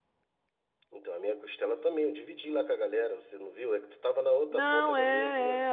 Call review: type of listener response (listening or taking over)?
taking over